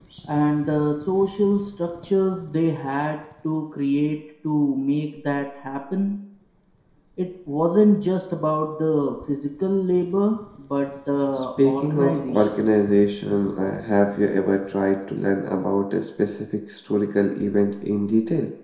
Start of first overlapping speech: 11 s

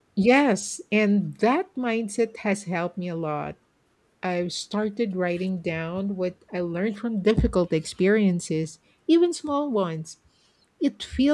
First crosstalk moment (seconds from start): none

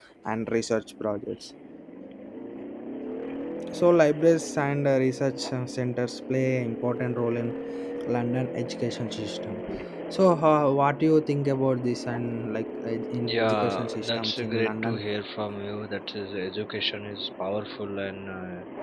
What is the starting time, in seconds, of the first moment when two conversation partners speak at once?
13 s

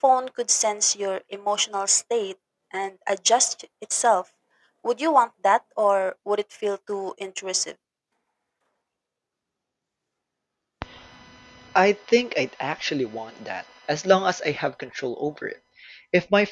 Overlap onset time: none

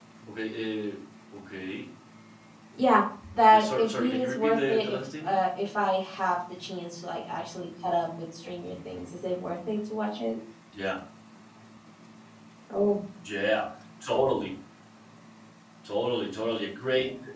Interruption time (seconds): 4 s

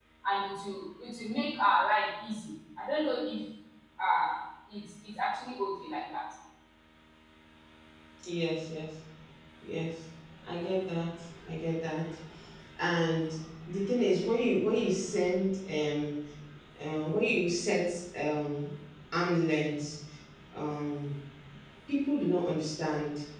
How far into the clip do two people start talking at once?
none

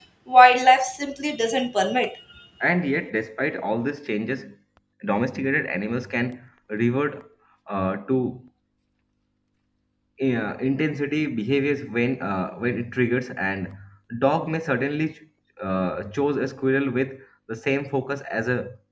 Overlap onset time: none

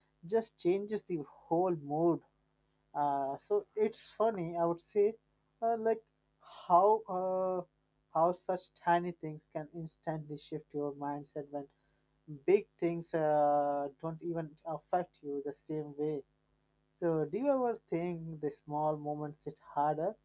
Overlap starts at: none

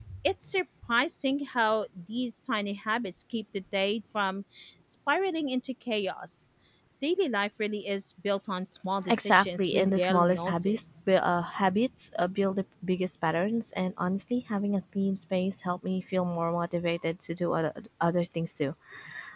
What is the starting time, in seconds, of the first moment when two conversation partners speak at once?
9 s

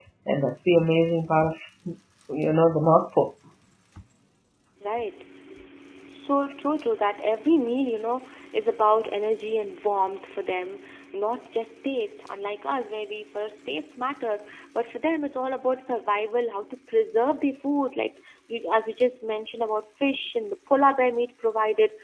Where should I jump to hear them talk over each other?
none

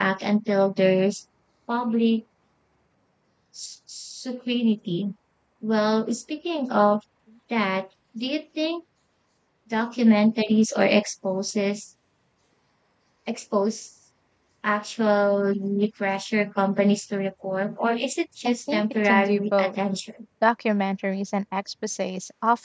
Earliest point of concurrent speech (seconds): 18 s

